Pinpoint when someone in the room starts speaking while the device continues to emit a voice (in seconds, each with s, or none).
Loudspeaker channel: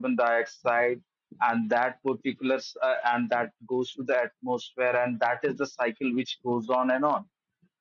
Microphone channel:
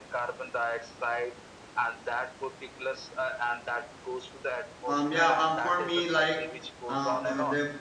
4.8 s